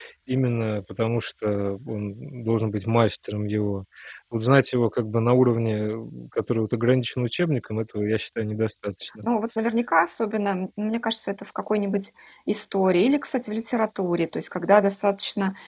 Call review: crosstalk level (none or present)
none